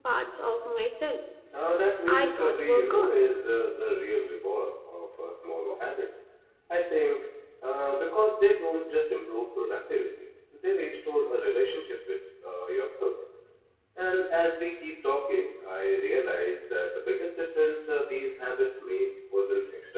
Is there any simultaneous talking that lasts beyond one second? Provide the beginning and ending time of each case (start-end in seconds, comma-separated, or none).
2.1-3.3